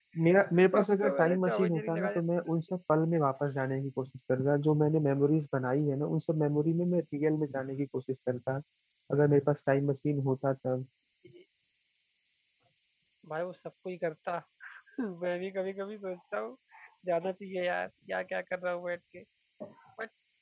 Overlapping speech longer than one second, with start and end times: 0.8-2.1

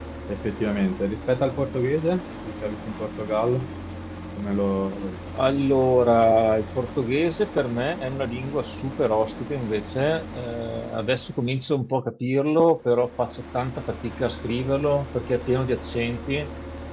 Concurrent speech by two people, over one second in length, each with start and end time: none

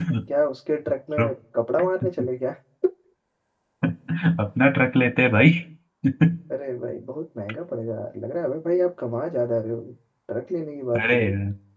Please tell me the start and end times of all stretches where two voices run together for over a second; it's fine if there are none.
none

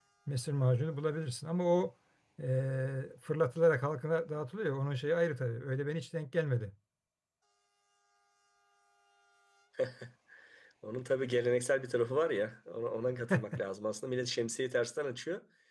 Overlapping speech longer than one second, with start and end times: none

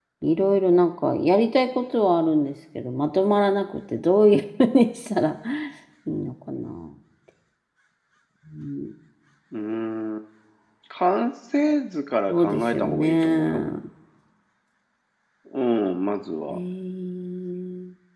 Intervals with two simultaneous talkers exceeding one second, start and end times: 12.3-13.6

